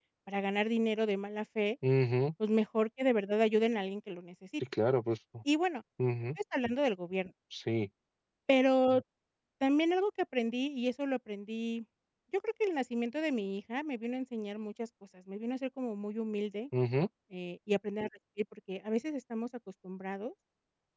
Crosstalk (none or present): none